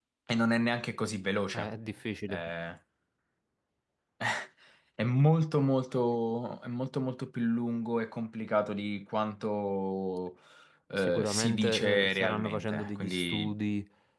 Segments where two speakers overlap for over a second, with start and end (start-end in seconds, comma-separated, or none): 11.0-13.6